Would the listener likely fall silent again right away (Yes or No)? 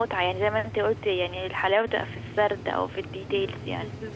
No